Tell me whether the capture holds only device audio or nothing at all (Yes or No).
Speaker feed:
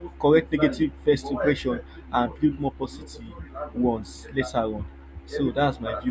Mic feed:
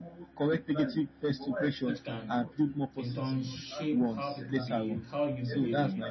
No